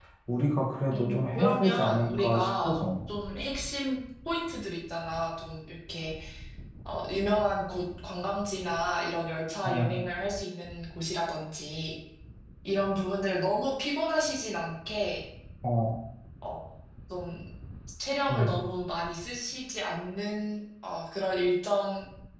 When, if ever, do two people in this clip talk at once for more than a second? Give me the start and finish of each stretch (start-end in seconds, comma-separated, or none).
0.9-2.8